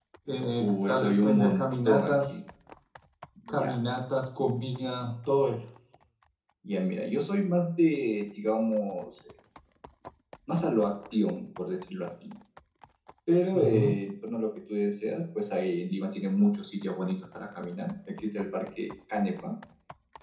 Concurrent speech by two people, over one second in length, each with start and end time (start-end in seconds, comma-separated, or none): 0.6-2.3